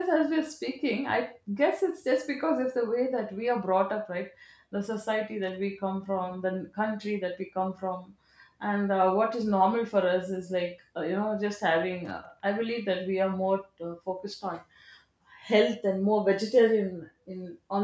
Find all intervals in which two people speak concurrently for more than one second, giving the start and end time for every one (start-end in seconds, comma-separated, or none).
none